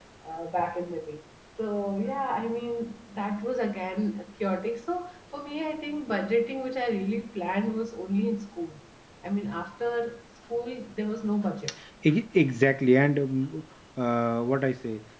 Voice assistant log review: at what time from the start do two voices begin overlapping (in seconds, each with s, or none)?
none